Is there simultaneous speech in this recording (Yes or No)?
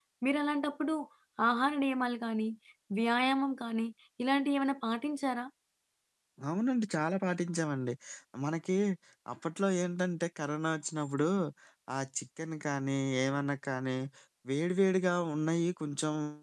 No